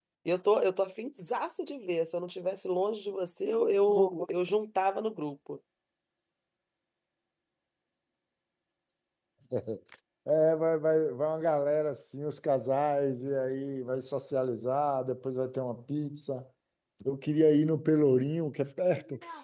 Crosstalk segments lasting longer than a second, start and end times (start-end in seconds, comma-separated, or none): none